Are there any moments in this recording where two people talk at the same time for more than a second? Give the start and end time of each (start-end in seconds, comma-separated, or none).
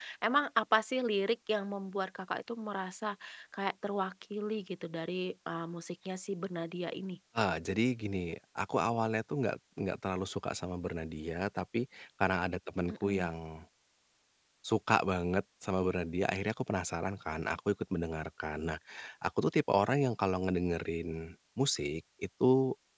none